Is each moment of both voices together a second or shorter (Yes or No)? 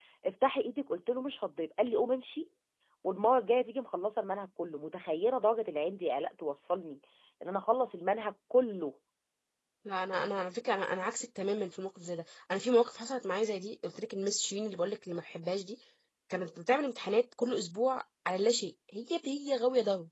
Yes